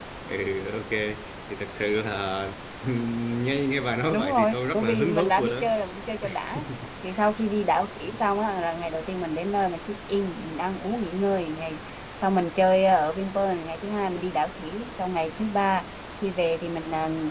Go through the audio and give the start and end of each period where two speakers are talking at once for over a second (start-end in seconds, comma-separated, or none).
4.1-5.6